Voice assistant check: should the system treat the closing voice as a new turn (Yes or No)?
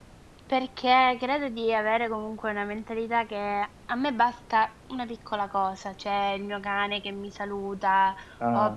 No